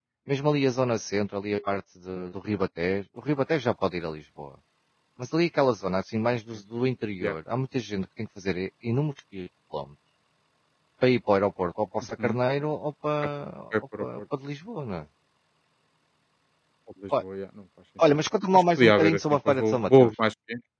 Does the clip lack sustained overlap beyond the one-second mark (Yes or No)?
No